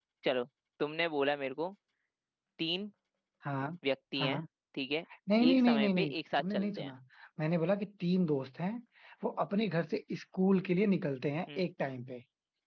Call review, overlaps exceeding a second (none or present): present